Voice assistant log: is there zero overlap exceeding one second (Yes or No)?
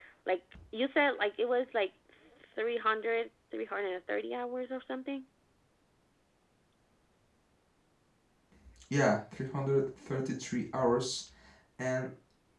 Yes